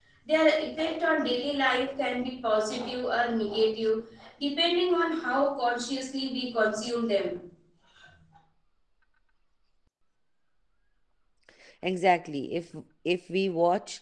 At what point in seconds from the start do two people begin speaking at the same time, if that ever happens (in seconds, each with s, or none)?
none